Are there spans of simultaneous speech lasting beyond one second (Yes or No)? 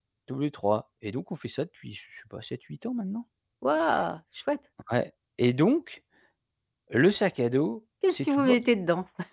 No